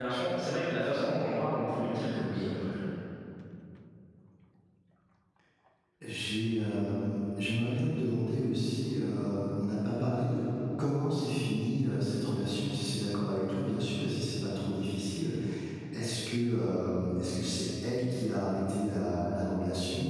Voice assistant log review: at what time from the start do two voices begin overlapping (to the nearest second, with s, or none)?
none